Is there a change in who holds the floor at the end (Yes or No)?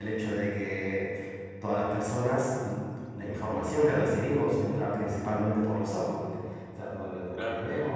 No